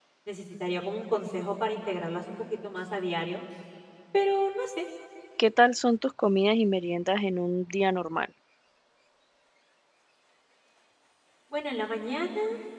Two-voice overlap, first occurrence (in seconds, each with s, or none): none